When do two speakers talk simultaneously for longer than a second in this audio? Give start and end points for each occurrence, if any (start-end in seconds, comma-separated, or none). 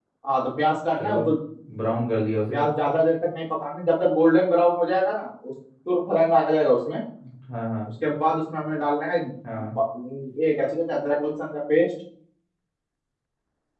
none